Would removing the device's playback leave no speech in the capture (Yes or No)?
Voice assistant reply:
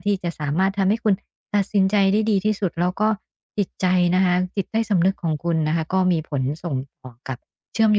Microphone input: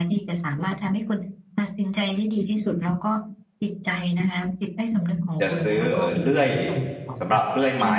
No